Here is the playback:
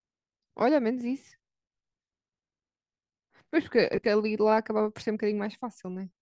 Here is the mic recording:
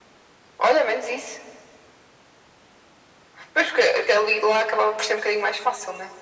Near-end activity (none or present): none